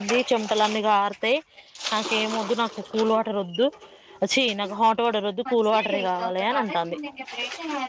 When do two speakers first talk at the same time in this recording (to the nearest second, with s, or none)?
6 s